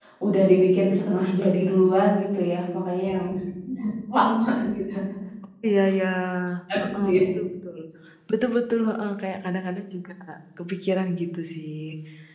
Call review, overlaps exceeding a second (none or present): none